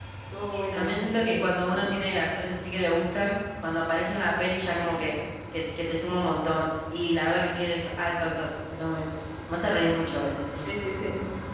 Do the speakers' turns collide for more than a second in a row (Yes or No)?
Yes